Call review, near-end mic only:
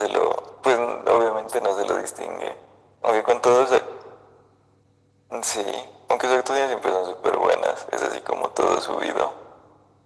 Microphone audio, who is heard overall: echo only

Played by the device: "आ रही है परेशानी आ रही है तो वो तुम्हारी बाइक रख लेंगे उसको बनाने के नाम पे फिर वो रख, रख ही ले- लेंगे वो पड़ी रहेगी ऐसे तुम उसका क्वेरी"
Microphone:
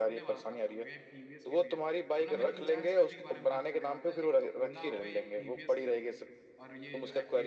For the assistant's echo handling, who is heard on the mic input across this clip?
both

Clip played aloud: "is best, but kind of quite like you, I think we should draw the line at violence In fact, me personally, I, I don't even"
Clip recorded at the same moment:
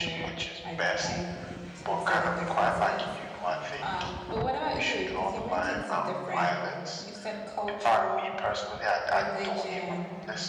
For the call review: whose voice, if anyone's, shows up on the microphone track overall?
both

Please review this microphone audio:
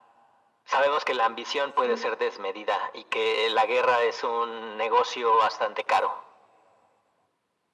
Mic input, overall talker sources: both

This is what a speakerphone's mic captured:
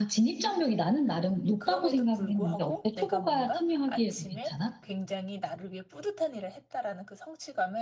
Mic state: both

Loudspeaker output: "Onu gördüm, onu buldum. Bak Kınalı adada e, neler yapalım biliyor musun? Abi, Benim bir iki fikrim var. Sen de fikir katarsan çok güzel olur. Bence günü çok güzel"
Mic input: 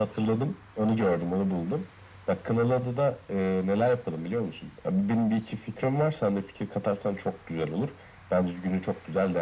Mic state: echo only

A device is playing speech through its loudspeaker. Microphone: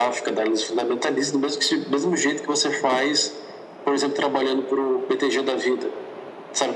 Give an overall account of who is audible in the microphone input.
echo only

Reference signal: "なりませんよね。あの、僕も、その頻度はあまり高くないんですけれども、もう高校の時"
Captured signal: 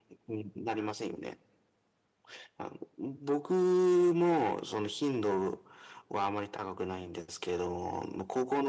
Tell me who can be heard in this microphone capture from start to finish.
echo only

